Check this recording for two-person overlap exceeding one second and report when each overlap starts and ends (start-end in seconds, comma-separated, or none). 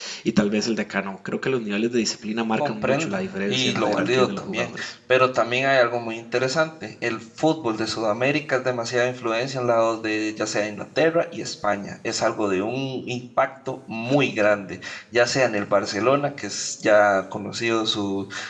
2.6-4.7